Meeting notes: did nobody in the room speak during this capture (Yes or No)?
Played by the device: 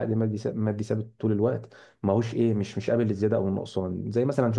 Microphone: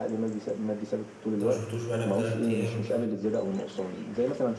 No